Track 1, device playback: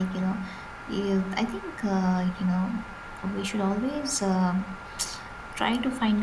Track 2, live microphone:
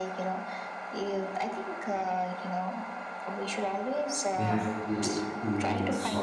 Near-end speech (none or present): present